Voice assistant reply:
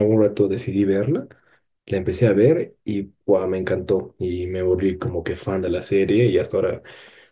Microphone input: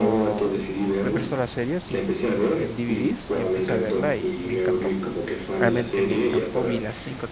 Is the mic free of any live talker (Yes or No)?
No